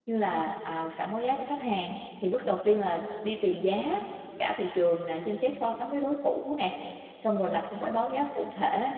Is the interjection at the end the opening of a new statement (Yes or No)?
No